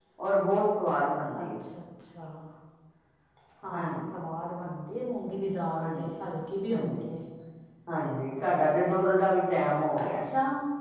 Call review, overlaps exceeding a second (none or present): none